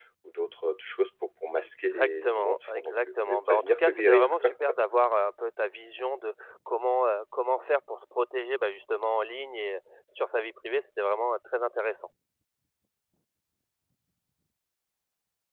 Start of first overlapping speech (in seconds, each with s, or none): 1.6 s